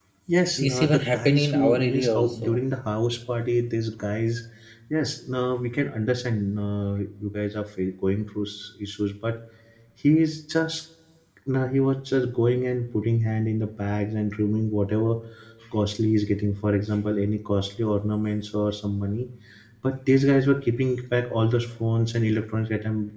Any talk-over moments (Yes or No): Yes